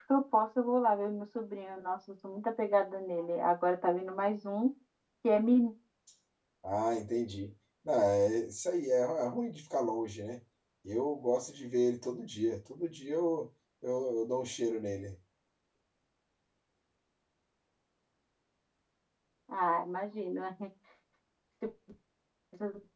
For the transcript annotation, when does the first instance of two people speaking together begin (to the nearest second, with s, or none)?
none